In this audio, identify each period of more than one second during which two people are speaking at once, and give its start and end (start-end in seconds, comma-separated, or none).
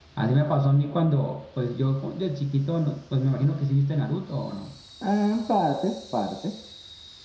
none